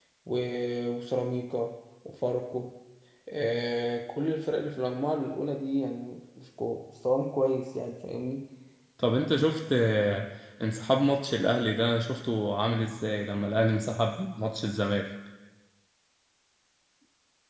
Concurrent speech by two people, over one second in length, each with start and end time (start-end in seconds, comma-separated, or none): none